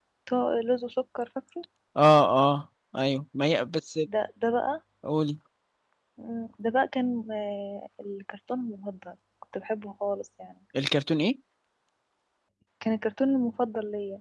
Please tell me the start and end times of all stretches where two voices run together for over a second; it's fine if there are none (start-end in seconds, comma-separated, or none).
none